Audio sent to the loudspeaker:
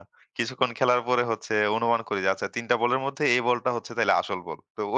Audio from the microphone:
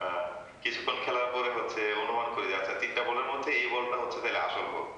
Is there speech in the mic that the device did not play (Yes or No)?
No